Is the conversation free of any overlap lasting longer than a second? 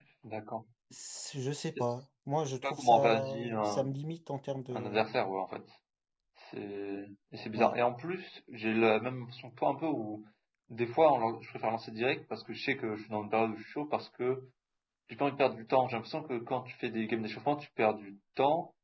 No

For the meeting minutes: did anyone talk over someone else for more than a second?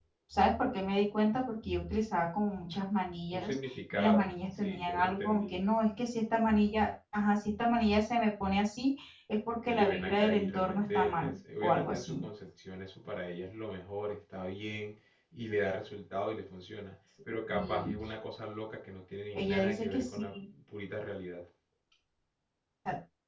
Yes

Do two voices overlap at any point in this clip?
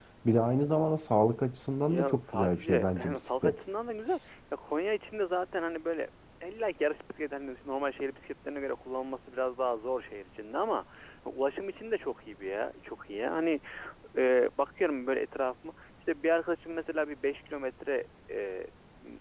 Yes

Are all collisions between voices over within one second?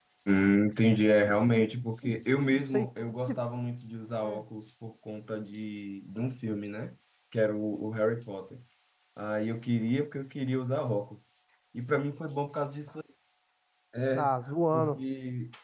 Yes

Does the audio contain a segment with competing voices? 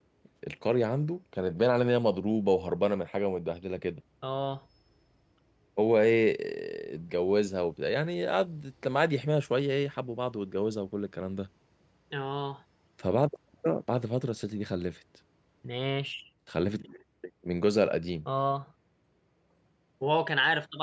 No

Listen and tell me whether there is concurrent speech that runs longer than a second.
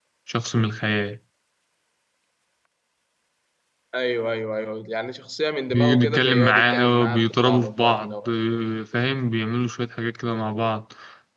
Yes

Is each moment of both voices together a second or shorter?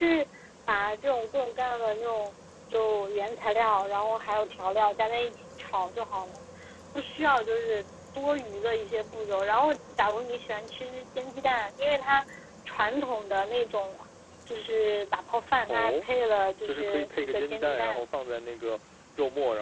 No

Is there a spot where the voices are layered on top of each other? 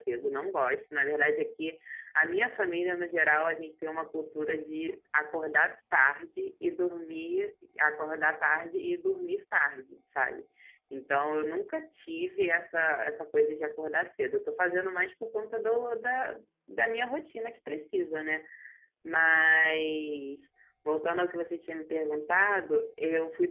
No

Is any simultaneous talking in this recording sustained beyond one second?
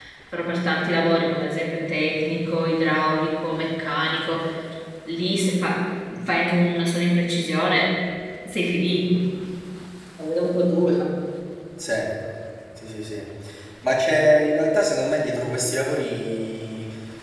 No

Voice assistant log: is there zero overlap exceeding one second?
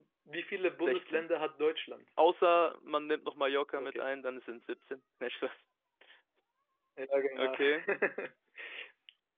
Yes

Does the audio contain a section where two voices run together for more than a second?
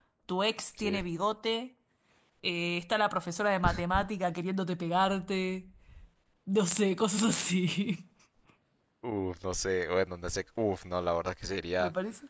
No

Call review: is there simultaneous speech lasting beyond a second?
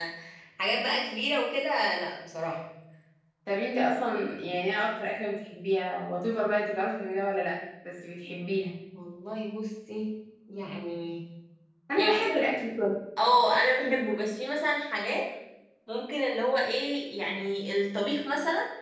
No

